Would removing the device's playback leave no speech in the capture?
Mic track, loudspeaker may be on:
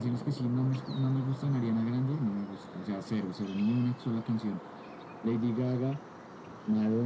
Yes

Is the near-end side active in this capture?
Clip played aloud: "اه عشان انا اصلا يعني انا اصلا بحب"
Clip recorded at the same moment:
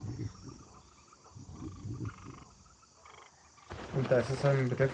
Yes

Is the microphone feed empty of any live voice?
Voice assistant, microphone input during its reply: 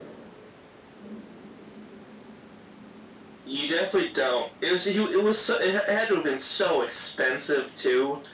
Yes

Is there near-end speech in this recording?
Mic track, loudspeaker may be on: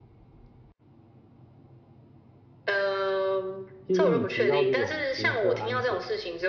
Yes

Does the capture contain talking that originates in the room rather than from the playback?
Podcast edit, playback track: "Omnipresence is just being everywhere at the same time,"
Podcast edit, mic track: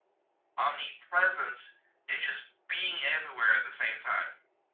No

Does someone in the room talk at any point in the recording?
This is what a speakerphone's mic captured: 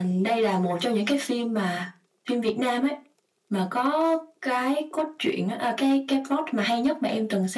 No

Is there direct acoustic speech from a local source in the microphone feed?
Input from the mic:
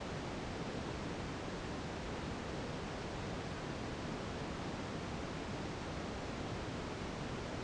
No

